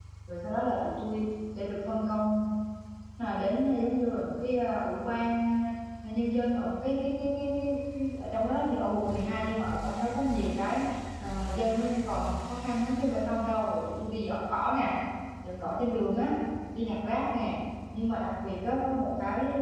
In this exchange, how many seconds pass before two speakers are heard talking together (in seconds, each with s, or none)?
none